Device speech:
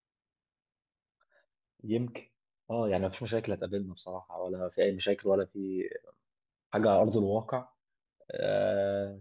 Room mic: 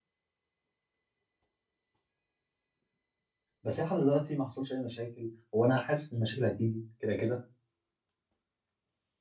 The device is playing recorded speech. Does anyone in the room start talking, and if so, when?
3.6 s

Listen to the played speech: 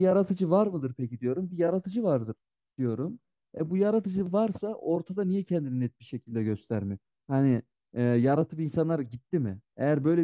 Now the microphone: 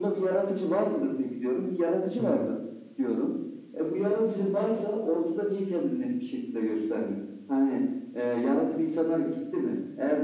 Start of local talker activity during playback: 2.2 s

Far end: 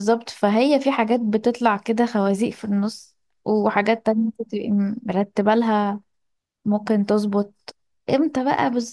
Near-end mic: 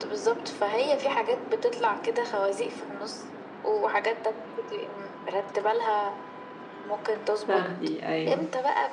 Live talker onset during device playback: 7.4 s

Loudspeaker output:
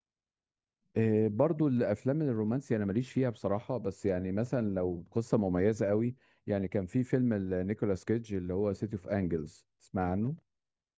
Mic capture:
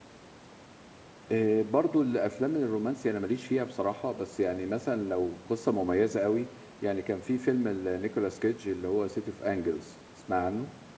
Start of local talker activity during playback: none

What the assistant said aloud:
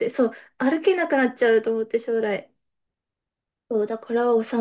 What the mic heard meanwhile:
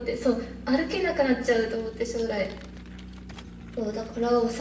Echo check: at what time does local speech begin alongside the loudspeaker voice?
none

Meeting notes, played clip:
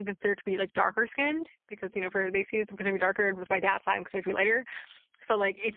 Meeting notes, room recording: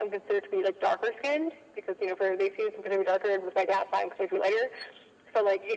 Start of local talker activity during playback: none

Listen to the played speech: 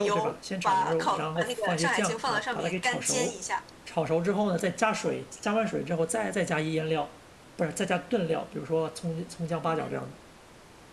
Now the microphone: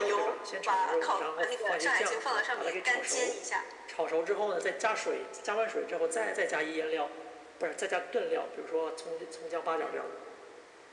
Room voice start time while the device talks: none

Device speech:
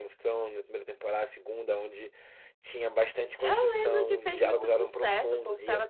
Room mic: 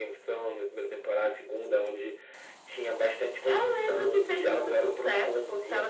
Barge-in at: none

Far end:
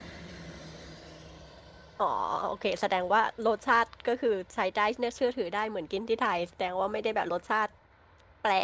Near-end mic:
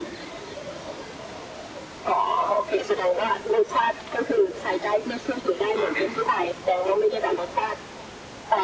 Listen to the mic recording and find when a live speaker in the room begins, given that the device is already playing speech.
5.7 s

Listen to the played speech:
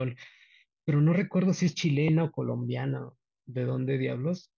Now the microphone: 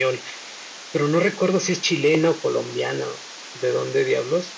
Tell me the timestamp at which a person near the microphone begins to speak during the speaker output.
none

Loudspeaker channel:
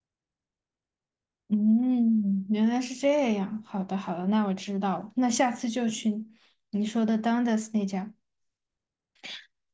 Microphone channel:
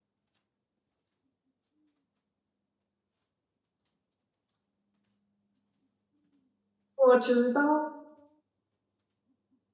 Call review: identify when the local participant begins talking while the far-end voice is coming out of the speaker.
6.9 s

